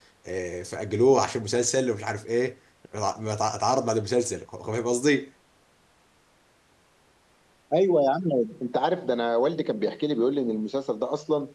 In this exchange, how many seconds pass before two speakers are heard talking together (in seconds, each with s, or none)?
none